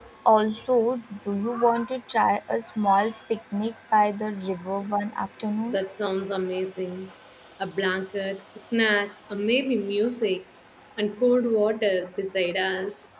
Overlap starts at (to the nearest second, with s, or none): none